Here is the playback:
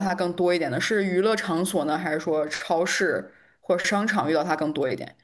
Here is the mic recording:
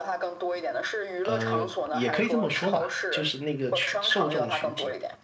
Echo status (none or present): present